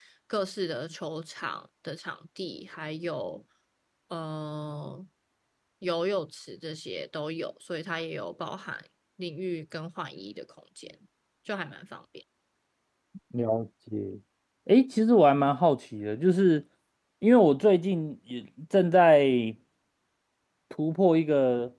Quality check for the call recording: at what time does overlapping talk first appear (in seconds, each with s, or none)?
none